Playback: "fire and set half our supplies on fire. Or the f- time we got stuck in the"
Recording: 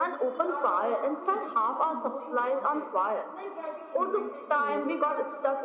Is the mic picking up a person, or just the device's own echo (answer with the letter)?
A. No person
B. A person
B